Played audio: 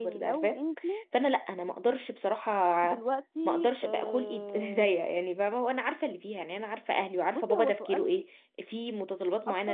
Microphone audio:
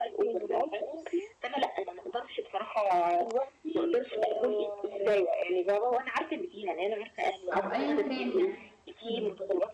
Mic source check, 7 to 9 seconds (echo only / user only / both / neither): both